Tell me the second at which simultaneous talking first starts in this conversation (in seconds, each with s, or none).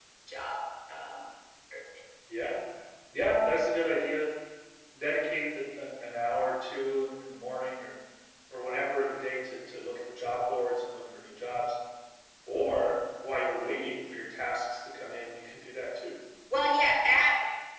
none